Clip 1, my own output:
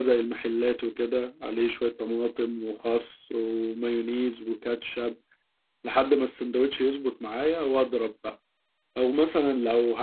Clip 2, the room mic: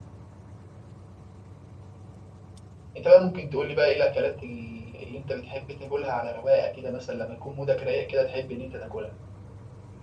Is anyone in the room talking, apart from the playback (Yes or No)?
Yes